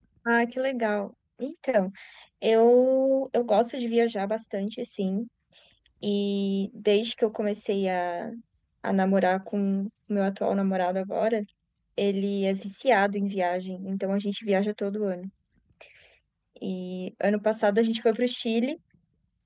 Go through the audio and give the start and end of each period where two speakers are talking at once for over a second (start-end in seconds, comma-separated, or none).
none